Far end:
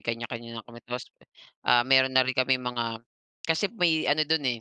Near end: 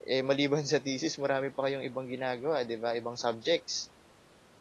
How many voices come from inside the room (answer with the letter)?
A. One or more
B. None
A